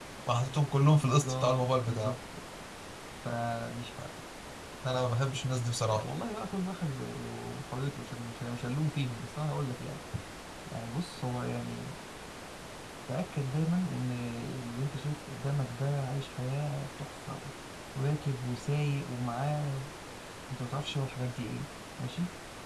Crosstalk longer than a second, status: present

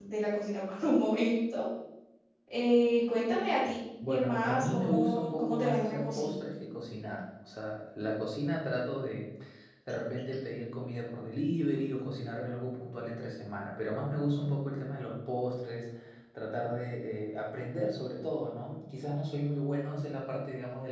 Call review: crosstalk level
present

